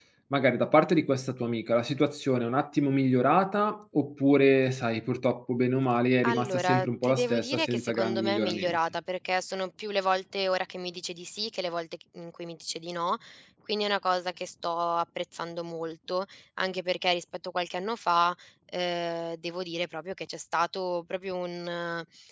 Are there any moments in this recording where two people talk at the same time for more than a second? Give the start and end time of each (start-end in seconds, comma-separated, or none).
6.2-8.8